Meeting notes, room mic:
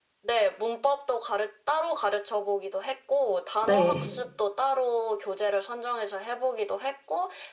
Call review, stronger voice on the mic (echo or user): user